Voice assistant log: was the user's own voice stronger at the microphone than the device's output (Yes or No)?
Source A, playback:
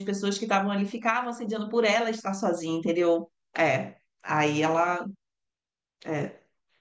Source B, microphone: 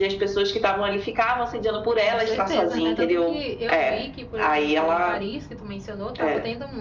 No